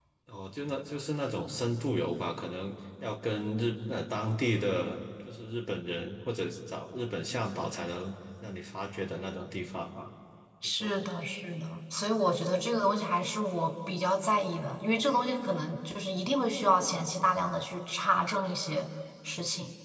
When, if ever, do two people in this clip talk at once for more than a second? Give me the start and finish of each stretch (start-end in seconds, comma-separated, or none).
none